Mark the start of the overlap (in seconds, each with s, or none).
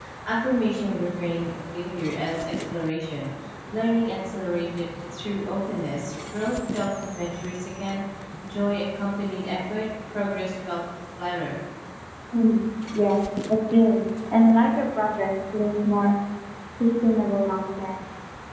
none